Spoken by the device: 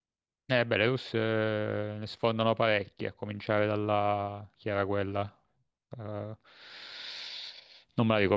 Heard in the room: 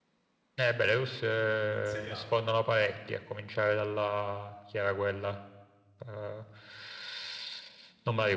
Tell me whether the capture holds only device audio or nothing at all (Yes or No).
No